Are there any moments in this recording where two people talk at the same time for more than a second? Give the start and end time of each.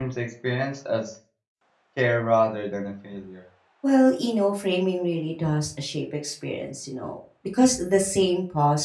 none

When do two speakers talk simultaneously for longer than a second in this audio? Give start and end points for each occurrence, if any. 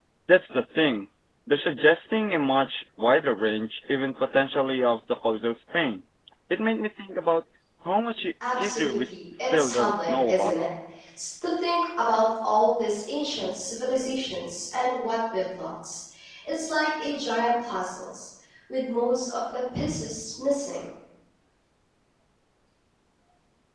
8.5-10.6

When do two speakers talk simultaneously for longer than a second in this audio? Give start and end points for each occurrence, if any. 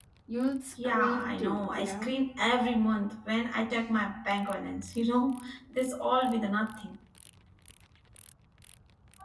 0.8-2.1

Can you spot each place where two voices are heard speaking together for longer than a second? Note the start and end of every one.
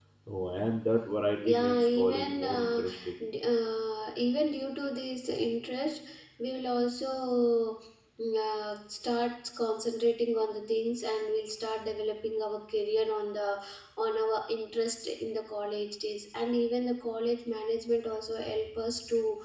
1.5-2.8

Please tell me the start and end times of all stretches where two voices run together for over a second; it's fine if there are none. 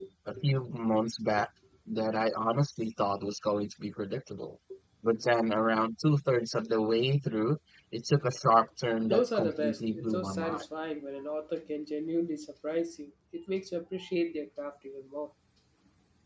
9.1-10.6

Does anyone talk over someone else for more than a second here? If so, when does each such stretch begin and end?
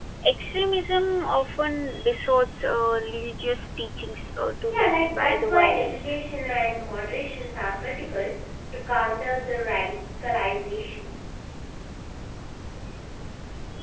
4.7-6.2

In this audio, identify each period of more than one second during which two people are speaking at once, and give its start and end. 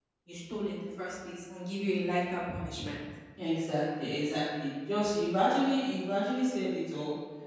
none

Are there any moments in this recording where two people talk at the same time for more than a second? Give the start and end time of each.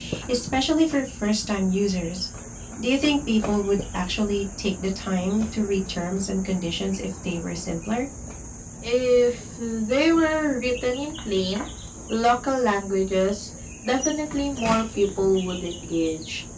none

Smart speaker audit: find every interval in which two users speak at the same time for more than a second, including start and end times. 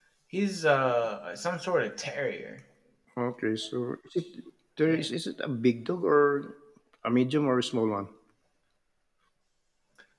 none

